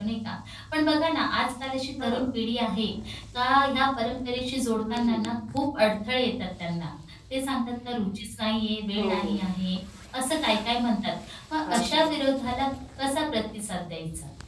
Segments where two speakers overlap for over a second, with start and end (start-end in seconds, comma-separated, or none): none